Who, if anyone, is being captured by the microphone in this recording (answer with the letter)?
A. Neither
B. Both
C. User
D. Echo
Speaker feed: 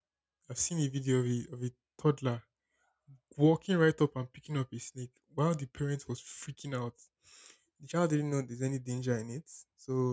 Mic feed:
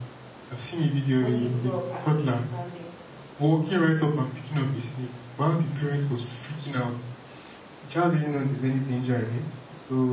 B